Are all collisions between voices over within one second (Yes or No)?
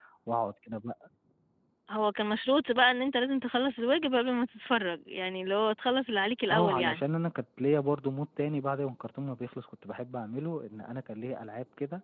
Yes